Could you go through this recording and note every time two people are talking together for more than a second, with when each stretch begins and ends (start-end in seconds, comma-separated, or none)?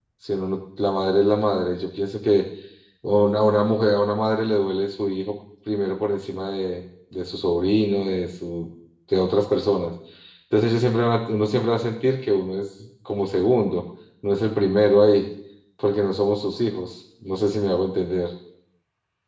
none